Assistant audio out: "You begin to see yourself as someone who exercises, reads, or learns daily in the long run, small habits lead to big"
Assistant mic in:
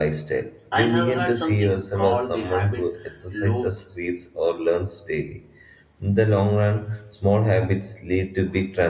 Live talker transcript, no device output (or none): I have heard something called the habit loop.